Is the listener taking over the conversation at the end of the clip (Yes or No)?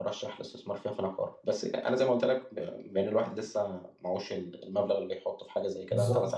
No